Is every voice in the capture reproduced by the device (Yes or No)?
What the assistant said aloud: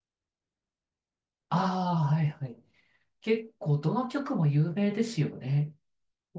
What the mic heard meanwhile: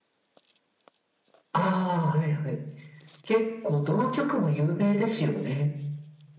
Yes